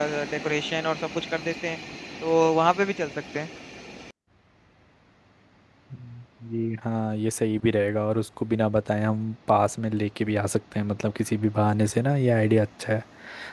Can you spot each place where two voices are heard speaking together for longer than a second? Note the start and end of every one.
none

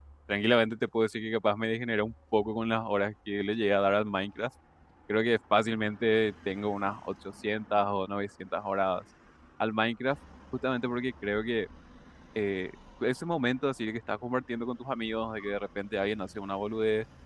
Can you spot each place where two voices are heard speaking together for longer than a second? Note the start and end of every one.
none

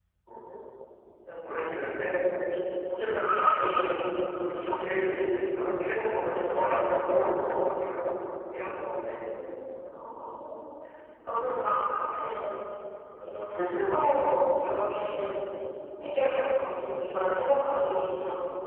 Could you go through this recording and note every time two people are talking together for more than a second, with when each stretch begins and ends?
none

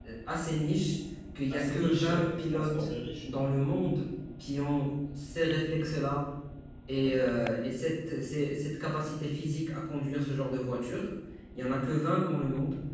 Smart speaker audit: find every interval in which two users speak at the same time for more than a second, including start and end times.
1.5-2.9

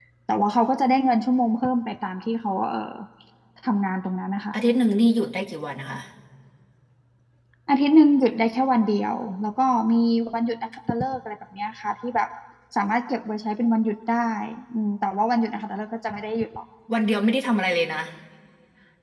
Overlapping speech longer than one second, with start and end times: none

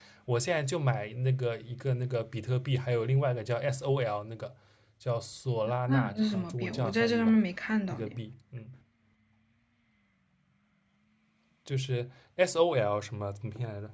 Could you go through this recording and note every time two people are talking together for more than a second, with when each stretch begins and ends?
5.9-7.4

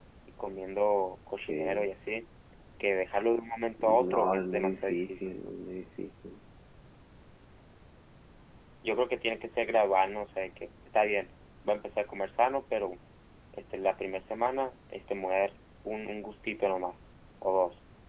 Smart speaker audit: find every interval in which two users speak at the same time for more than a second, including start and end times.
3.8-5.3

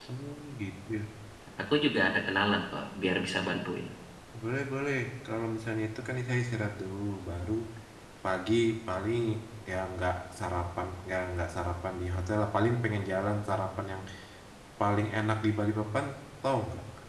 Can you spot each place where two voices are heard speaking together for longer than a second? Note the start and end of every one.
none

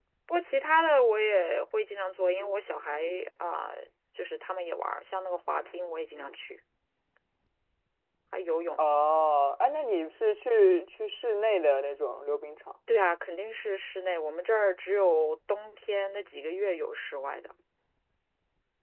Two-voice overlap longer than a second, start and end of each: none

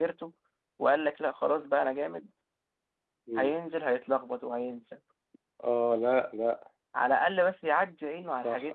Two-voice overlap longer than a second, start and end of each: none

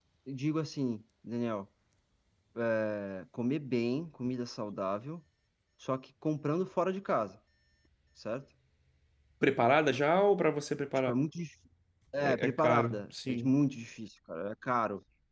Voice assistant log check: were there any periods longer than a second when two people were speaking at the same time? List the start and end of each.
12.2-13.5

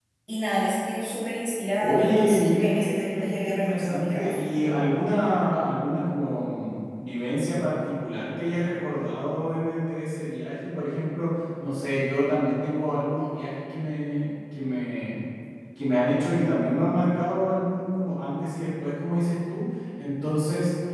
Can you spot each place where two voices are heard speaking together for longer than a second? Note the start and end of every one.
1.8-4.4

